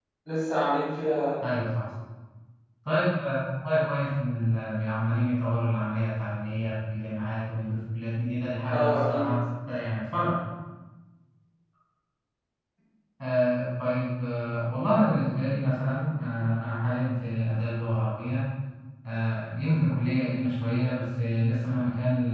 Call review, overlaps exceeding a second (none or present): none